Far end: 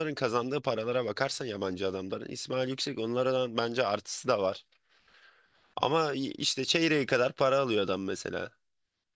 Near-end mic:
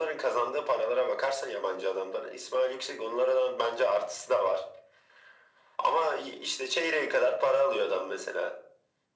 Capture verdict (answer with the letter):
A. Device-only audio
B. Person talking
A